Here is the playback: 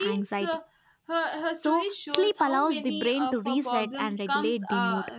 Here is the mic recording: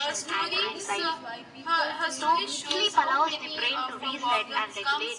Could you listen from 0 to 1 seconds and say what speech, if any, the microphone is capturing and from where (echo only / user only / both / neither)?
both